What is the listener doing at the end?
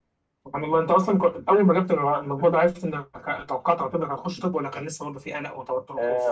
taking over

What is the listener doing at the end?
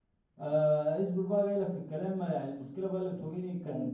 listening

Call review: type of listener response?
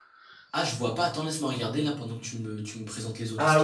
taking over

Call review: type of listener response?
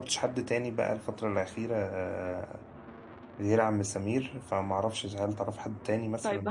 taking over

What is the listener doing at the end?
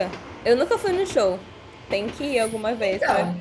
taking over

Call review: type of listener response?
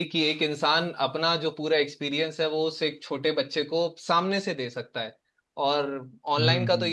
listening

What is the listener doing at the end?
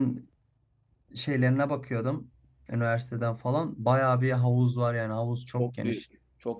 taking over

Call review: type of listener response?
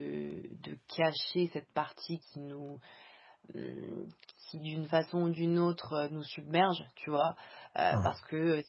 listening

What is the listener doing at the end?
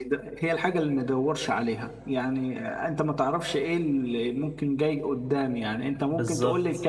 listening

